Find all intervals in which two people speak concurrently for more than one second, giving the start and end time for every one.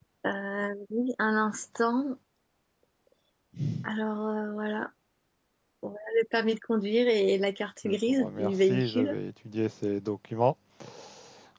7.8-9.1

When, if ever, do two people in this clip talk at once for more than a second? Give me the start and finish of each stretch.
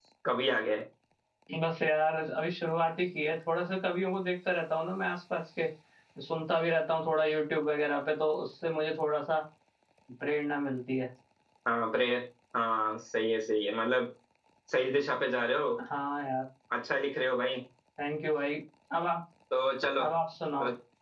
none

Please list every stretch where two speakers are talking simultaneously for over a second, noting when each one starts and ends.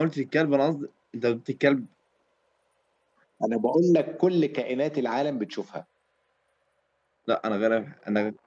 none

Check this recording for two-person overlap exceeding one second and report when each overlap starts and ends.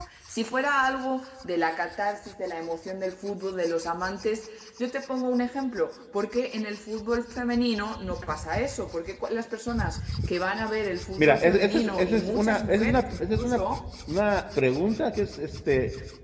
11.2-13.6

